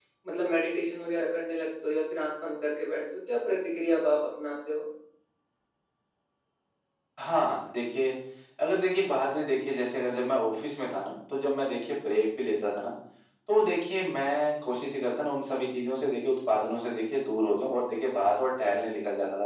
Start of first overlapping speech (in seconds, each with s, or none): none